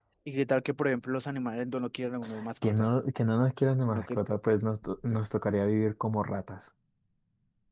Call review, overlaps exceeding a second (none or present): none